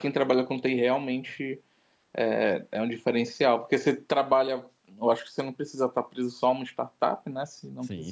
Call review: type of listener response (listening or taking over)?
taking over